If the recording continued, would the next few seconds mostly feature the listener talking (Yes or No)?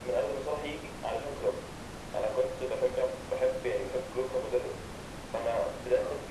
No